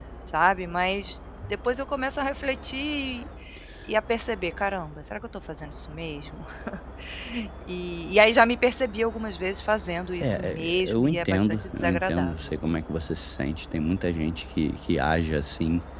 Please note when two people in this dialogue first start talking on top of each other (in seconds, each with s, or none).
10.2 s